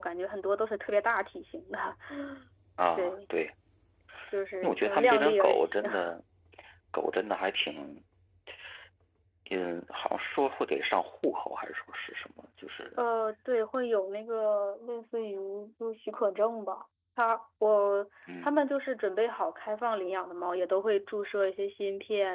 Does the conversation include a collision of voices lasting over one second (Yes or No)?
Yes